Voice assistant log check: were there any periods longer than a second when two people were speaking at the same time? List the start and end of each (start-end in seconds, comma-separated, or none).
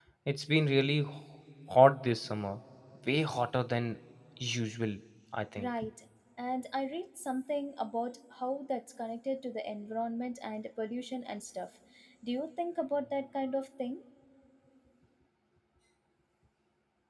none